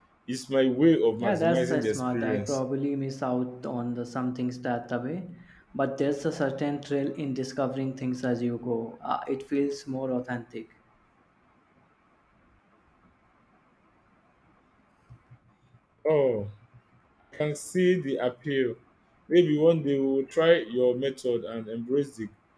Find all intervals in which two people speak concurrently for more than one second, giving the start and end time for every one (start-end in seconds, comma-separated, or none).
1.2-2.6